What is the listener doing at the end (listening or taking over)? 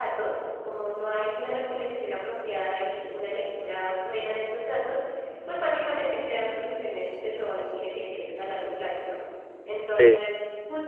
listening